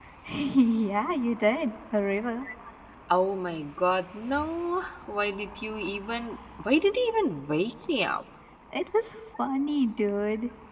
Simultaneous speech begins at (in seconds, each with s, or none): none